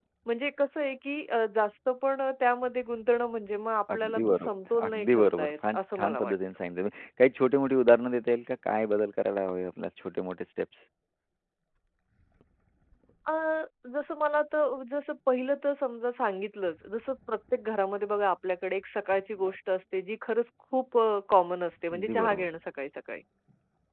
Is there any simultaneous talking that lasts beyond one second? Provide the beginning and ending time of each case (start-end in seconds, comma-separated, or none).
3.9-6.3